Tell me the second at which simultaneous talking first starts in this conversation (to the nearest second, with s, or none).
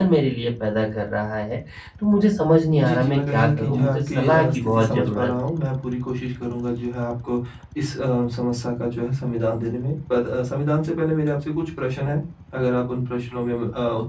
3 s